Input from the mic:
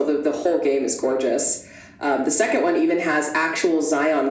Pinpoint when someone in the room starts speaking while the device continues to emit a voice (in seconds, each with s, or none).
none